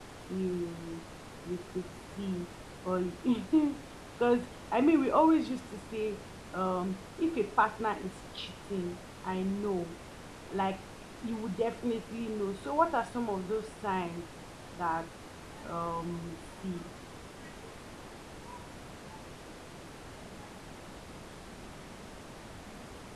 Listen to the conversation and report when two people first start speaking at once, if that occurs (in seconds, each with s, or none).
none